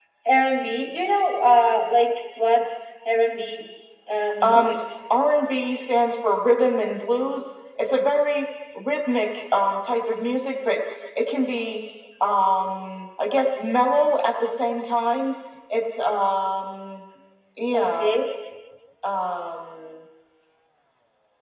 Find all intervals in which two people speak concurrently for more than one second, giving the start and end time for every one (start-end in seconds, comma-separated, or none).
none